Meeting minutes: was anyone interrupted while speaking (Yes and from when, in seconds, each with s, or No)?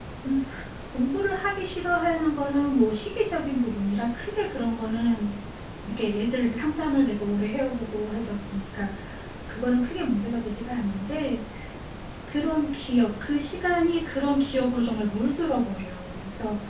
No